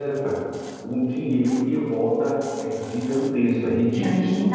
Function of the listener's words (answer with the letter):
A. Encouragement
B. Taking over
B